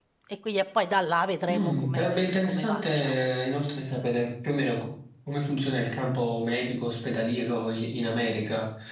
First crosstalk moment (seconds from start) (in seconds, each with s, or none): 1.5 s